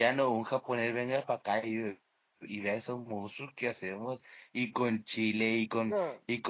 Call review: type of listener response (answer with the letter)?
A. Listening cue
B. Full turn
A